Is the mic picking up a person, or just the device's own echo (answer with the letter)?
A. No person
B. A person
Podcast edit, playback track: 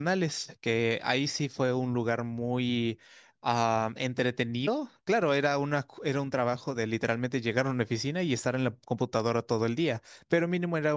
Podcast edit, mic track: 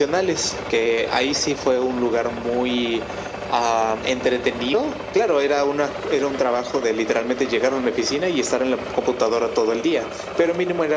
A